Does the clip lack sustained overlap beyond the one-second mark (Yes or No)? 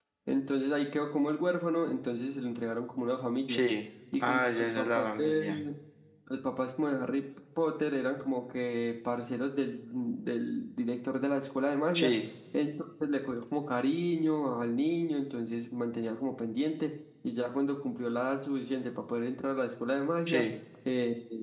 No